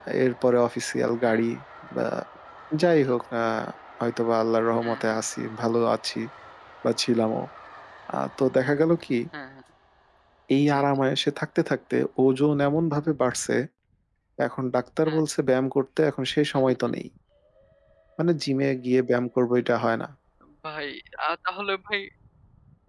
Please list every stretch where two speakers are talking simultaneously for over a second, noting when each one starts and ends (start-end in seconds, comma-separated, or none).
none